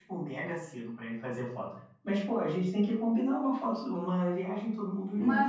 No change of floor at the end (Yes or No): No